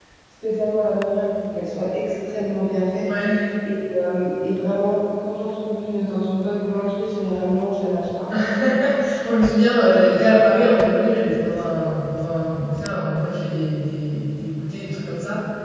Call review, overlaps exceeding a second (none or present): none